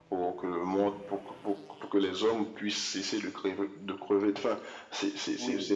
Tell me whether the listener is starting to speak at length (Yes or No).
No